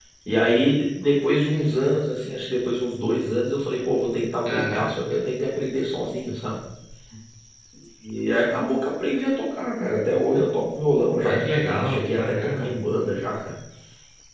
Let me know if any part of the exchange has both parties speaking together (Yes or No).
Yes